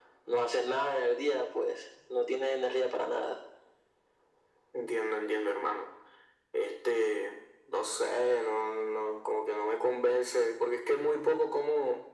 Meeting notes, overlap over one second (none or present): none